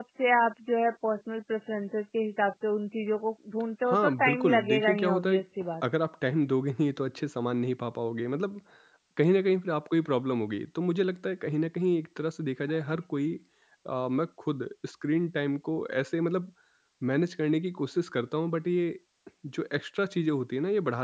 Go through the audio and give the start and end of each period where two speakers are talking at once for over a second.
3.9-5.4

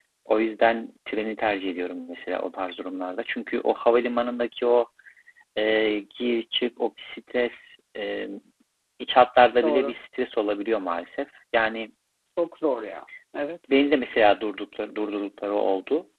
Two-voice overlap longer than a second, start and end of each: none

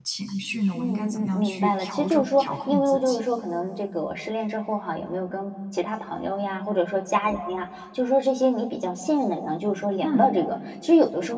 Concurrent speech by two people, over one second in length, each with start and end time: 0.7-3.2

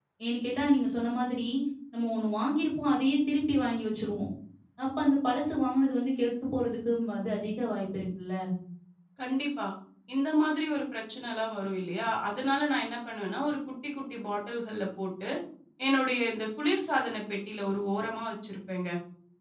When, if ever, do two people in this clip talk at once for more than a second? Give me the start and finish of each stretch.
none

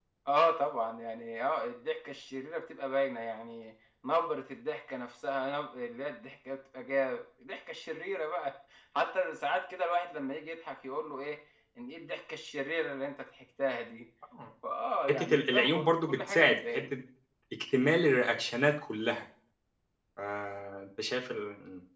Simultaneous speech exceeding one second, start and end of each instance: 15.1-16.8

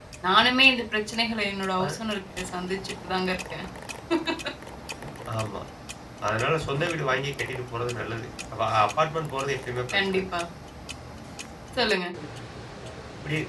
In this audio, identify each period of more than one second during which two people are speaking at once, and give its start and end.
none

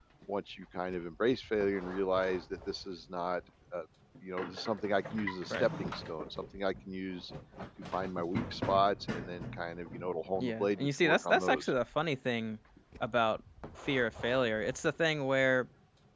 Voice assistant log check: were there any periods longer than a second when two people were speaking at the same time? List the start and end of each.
10.4-11.7

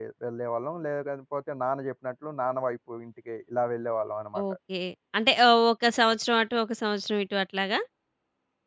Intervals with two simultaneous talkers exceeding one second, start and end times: none

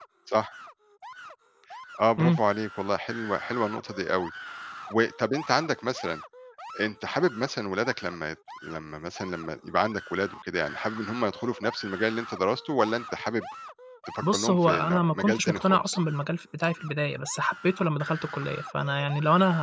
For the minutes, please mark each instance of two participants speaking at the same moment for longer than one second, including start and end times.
14.2-16.0

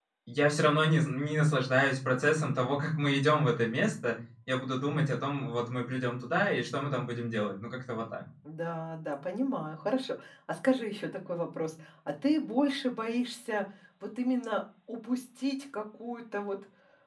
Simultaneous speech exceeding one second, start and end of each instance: none

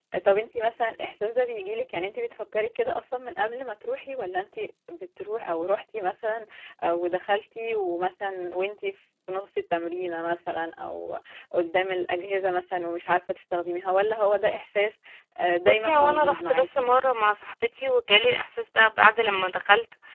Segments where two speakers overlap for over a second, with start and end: 15.7-16.9

